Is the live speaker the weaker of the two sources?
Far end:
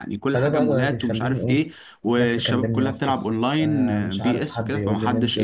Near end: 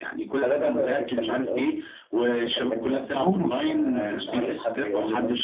No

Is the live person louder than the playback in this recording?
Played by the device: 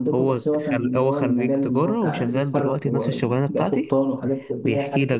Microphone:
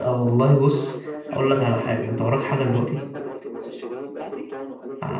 Yes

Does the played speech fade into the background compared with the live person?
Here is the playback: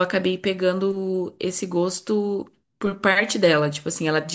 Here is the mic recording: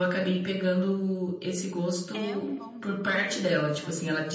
No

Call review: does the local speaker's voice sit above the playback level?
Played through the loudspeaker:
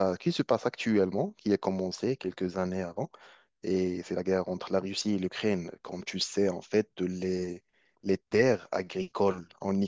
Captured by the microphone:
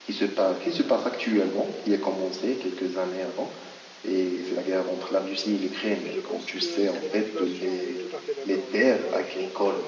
No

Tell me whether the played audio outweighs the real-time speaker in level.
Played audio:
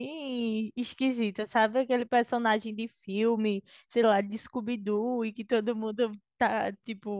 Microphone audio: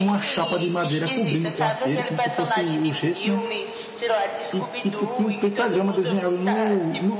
No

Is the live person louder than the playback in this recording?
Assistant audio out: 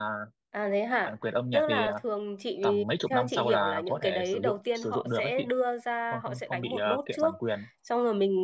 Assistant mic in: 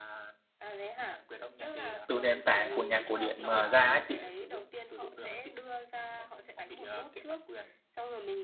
Yes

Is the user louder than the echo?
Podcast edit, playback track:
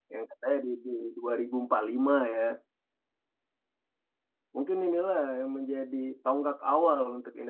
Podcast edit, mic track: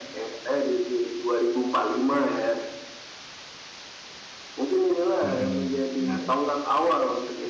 No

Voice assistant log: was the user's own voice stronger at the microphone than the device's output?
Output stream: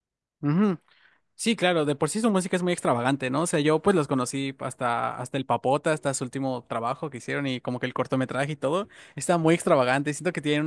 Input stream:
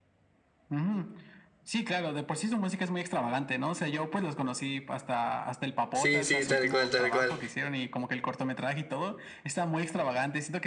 Yes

